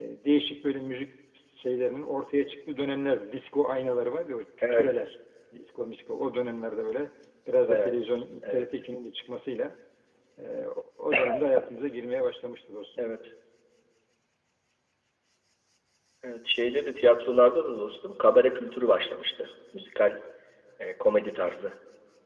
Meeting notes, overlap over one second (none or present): none